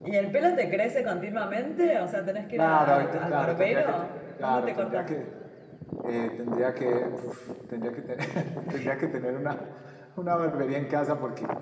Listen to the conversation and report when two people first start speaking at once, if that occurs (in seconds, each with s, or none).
2.5 s